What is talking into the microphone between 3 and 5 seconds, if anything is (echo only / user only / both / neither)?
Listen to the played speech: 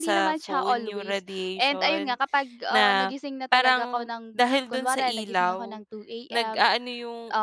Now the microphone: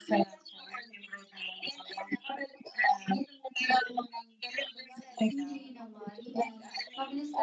echo only